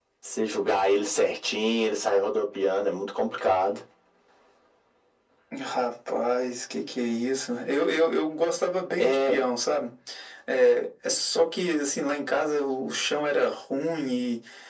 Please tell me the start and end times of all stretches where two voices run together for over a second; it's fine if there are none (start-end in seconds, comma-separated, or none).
none